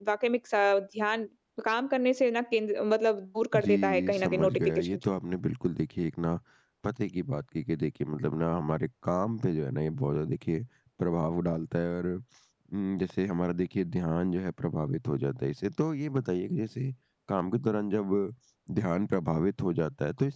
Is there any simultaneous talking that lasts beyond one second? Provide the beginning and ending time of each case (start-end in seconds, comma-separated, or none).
3.5-5.0